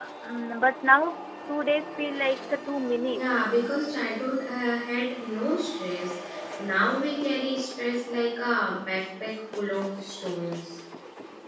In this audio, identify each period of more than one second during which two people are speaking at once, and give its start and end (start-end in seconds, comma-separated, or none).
none